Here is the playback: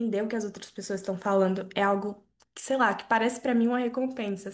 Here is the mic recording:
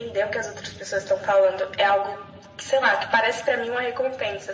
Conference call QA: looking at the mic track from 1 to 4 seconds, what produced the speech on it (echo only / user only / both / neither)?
echo only